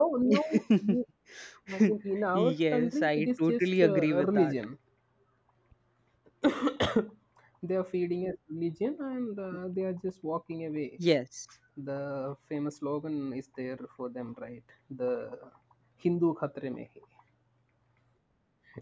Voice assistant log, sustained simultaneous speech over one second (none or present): present